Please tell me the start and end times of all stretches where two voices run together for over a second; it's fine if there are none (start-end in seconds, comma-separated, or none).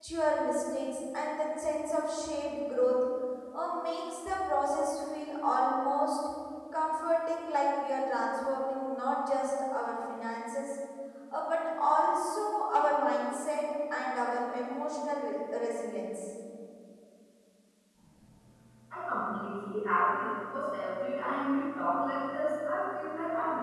none